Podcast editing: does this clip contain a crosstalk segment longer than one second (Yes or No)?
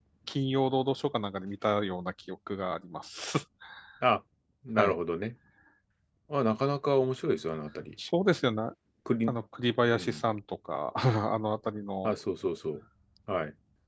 No